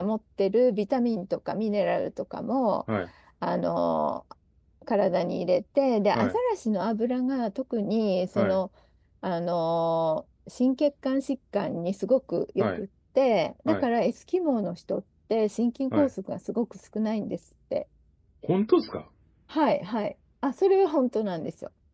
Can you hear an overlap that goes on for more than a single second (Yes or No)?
No